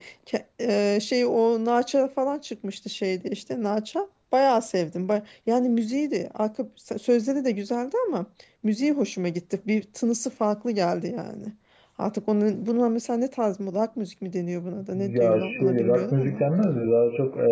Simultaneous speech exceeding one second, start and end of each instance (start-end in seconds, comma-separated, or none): 14.9-16.4